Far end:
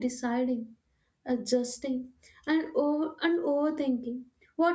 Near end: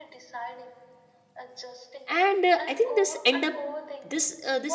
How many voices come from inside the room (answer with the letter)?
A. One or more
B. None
A